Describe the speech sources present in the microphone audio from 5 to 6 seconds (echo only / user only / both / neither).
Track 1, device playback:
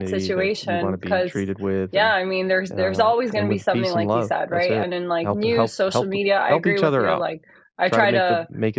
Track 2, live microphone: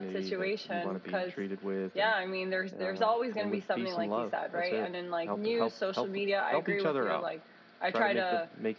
echo only